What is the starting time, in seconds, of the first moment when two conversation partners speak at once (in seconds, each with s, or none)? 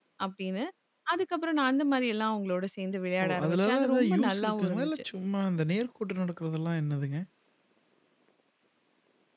3.2 s